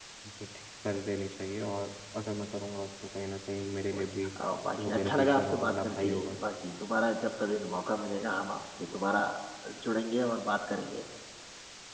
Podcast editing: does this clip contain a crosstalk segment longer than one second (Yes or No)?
Yes